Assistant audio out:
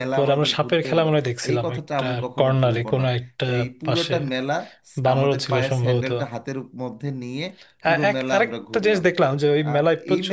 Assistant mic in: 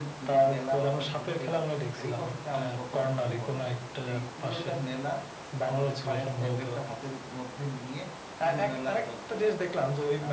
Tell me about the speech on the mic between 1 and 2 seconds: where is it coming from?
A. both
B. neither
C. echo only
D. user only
C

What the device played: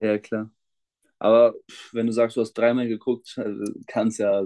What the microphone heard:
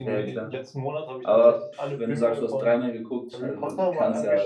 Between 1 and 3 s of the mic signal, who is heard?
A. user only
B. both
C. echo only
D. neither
B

